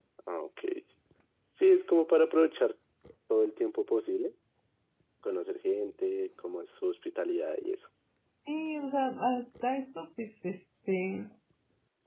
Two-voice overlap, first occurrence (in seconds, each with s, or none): none